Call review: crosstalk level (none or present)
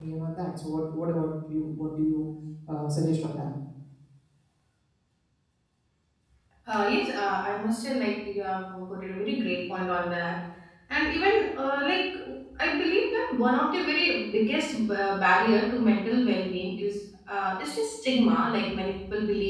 none